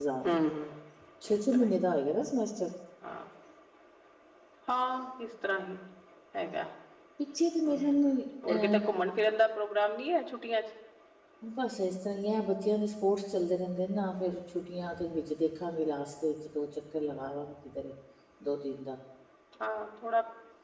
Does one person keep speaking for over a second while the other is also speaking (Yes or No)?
No